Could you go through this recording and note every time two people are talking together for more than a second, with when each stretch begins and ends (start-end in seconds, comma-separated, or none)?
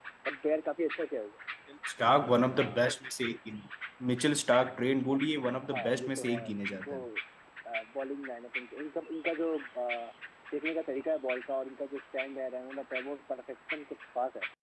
5.7-7.0